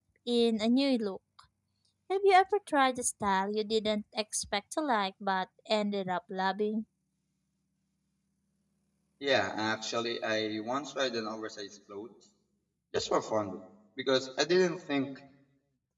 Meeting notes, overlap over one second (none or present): none